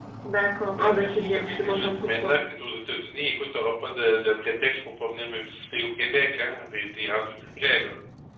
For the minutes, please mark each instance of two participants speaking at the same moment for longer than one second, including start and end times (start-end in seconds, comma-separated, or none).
0.8-2.4